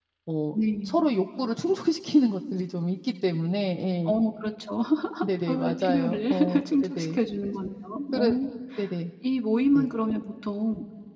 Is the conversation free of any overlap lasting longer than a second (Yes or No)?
No